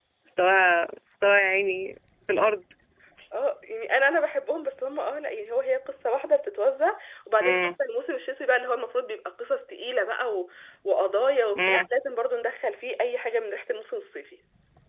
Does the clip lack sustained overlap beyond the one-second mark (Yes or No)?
Yes